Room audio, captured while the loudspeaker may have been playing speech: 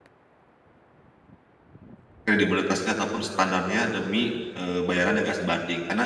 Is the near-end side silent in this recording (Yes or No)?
No